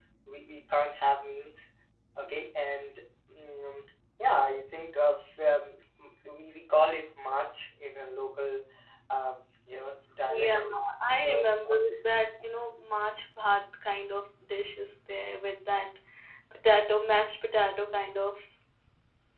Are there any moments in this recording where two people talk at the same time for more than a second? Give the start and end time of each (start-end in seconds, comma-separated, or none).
none